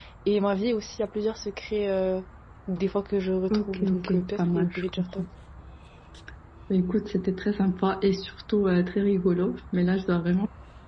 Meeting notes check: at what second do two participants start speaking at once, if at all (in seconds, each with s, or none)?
3.5 s